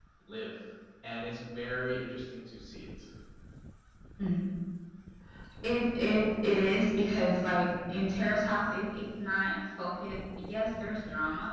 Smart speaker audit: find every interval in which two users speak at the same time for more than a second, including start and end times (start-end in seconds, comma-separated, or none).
none